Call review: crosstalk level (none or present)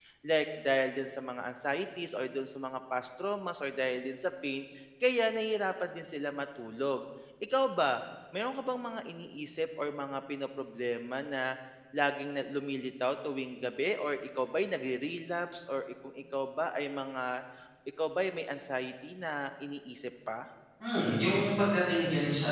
none